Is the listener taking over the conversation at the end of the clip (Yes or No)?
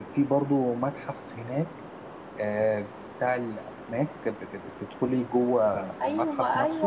Yes